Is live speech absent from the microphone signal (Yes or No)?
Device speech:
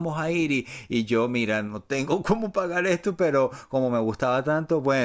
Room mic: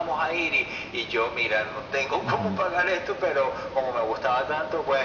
No